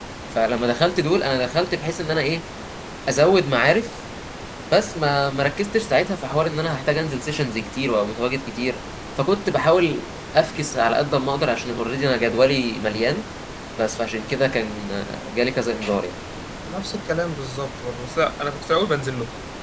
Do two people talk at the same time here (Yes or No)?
No